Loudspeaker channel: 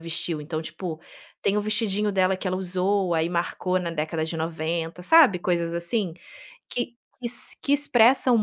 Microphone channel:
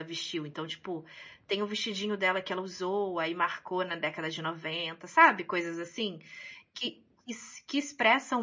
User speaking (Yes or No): No